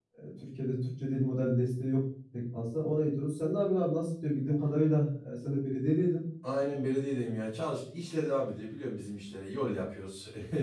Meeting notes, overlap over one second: none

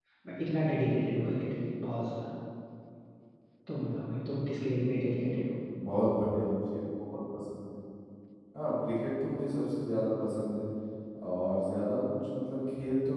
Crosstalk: none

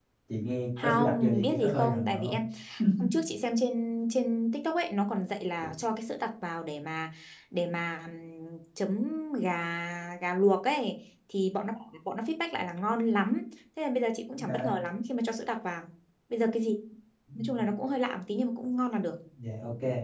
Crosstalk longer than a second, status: present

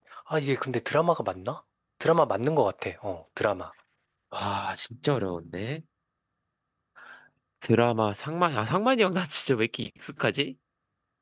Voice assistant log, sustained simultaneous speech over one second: none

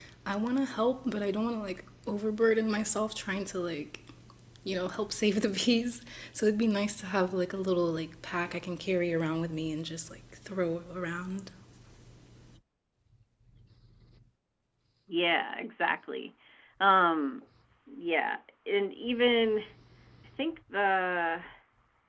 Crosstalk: none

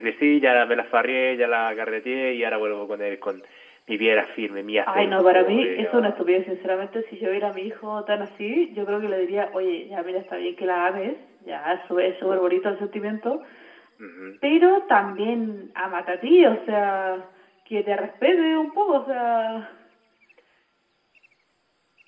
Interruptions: present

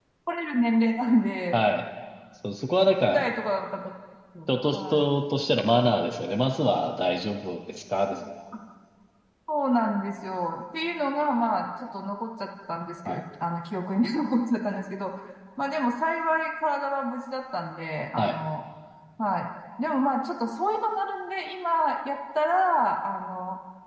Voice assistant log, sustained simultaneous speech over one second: none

